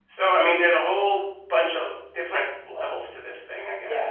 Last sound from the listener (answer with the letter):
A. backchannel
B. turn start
B